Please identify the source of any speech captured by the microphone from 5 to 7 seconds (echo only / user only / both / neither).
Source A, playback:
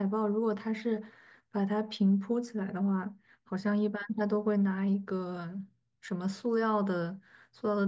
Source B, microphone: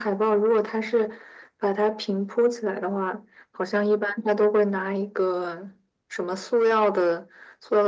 echo only